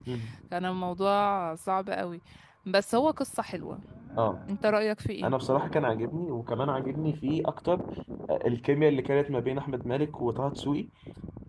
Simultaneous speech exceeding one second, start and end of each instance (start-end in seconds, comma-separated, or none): none